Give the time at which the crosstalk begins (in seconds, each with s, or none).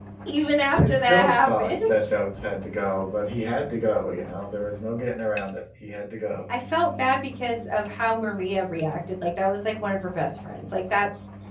0.8 s